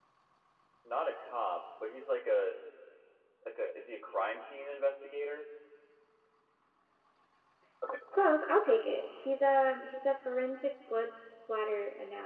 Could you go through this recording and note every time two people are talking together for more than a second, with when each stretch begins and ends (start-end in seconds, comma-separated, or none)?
none